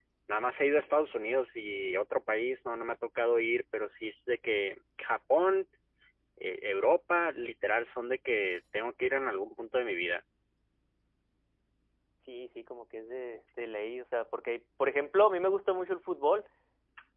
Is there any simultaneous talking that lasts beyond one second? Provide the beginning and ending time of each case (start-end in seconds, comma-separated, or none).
none